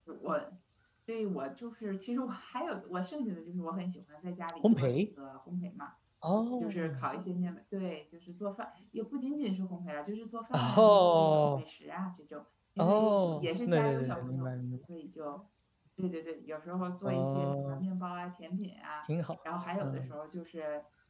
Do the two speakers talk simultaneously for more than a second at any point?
Yes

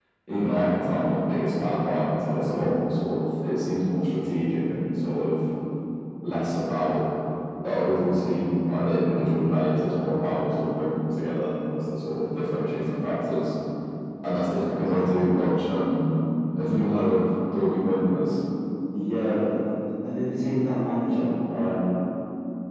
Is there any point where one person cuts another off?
No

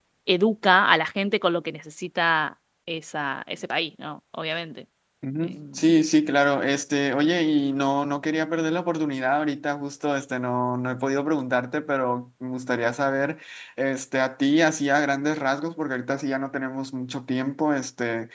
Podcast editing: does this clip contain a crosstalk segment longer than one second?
No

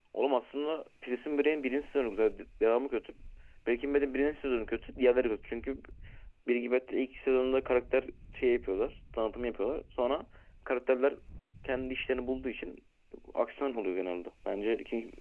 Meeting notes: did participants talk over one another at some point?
No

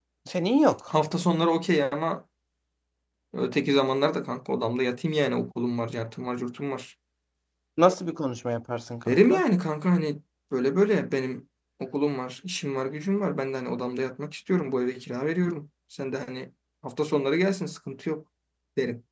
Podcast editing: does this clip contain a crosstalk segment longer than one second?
No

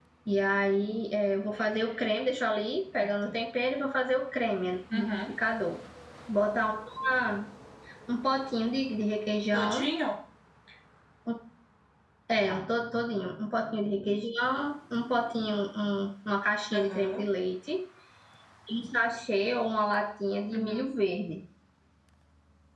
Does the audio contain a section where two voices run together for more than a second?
No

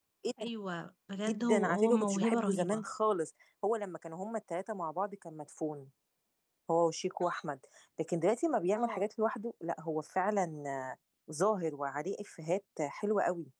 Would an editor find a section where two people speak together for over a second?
Yes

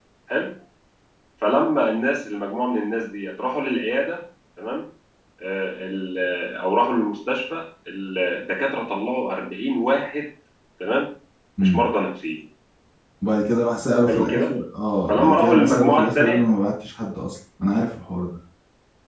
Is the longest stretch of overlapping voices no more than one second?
No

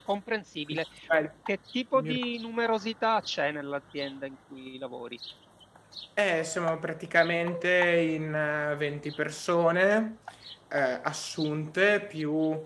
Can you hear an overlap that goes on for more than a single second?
No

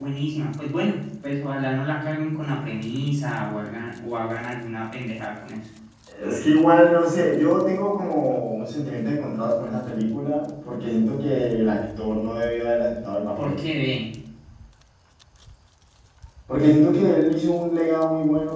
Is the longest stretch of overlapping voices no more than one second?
Yes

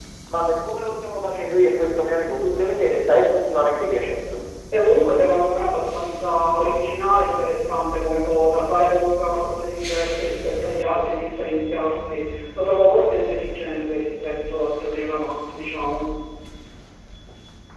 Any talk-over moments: No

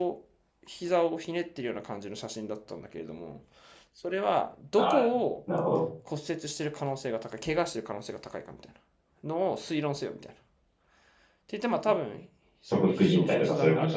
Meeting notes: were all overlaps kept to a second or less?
No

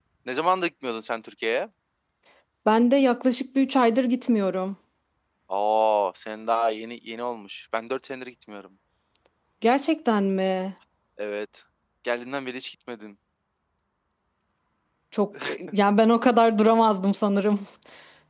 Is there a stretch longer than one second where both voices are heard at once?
No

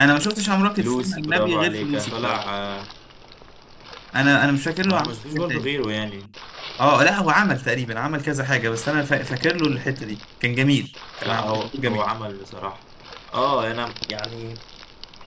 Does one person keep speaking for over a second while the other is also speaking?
Yes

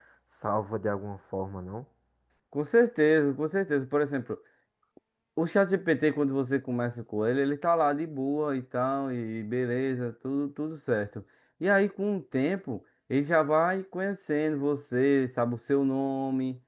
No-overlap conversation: Yes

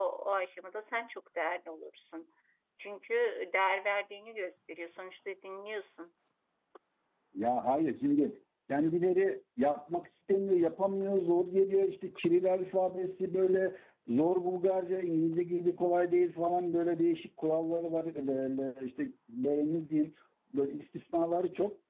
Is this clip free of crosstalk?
Yes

